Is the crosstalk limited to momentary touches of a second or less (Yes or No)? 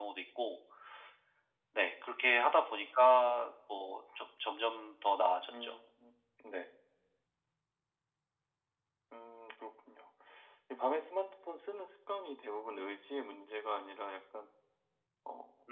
Yes